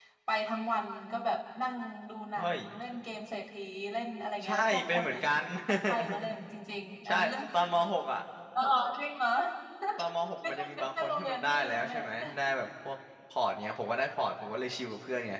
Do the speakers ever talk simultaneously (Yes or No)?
Yes